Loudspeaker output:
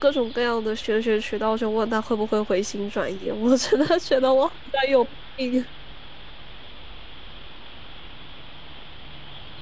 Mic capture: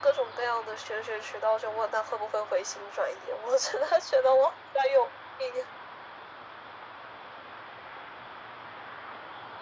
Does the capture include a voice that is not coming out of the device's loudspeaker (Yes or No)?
No